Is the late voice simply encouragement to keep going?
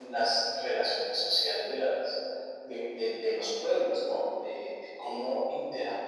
Yes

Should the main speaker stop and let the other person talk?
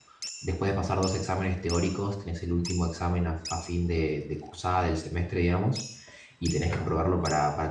No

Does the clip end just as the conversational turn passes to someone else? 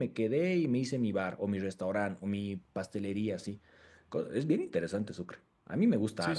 Yes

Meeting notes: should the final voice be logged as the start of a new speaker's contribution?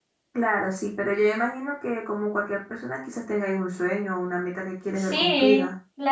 Yes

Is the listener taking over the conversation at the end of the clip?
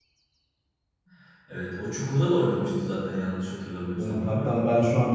Yes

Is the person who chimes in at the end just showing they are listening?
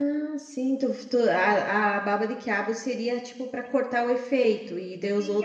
No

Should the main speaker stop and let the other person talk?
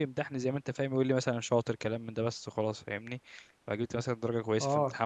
Yes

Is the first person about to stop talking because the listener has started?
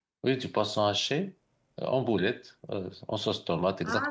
Yes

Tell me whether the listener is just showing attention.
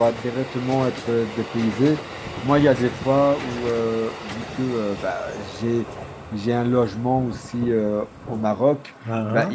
Yes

